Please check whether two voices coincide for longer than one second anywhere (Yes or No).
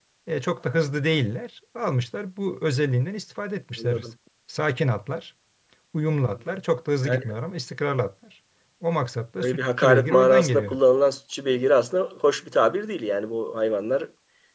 Yes